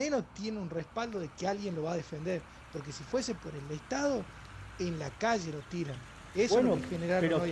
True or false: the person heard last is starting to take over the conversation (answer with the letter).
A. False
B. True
B